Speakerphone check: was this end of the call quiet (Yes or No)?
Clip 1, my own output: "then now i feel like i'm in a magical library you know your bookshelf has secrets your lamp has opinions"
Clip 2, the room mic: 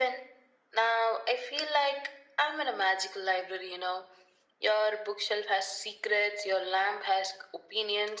Yes